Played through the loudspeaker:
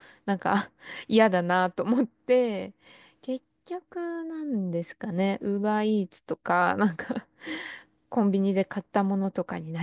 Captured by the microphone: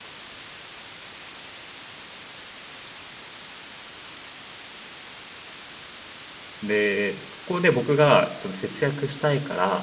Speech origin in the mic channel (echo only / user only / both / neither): user only